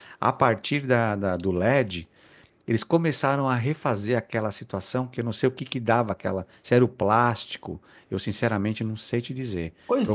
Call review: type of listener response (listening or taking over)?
taking over